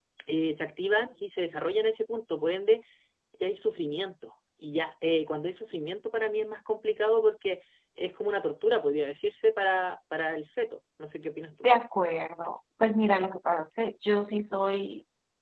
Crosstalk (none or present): none